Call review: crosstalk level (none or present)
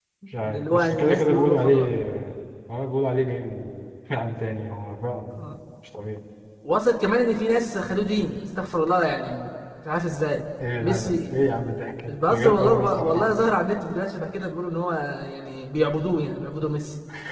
present